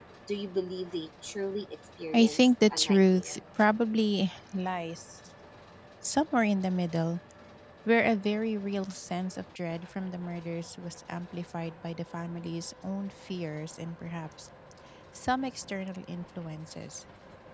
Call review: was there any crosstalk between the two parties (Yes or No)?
Yes